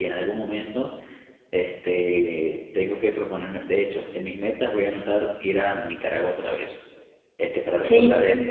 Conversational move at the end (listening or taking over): listening